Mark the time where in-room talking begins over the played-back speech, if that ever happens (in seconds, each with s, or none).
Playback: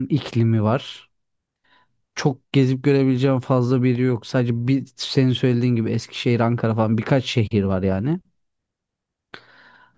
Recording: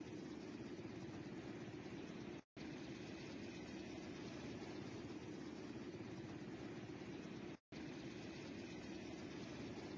none